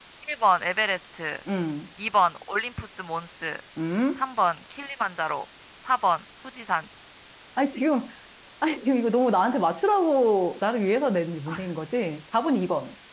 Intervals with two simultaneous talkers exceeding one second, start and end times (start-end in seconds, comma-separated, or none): none